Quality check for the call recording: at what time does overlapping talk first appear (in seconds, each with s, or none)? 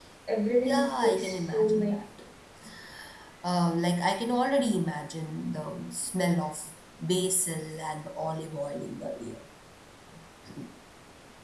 0.6 s